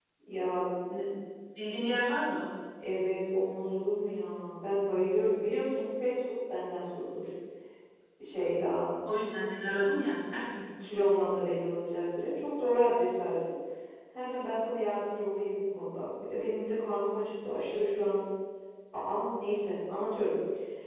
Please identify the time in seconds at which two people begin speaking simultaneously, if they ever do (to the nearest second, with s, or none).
none